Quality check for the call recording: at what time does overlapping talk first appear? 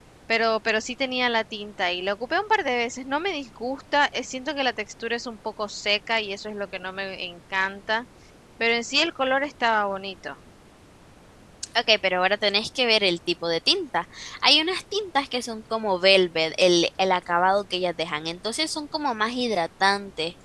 none

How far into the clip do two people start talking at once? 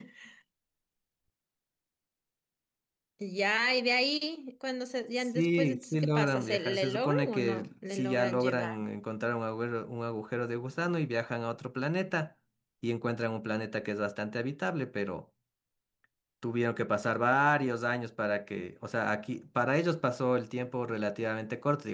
5.2 s

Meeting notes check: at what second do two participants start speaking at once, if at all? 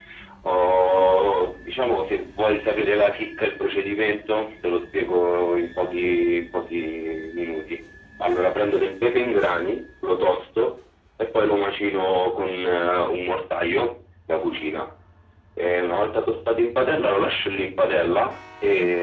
none

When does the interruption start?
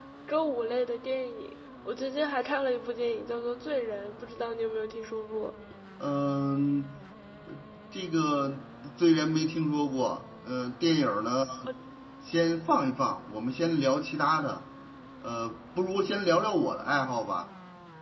none

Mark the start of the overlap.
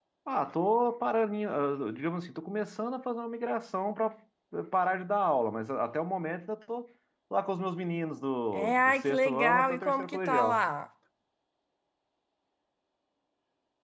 8.5 s

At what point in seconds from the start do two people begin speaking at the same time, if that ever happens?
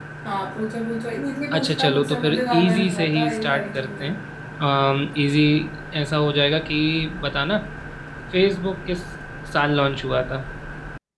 1.5 s

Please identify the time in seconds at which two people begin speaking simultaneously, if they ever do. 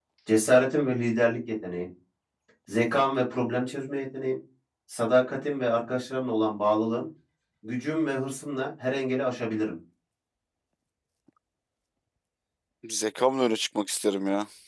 none

